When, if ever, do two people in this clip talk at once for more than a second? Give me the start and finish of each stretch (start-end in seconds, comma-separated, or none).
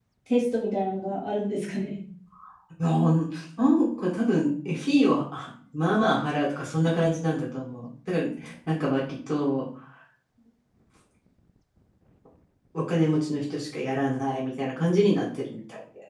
none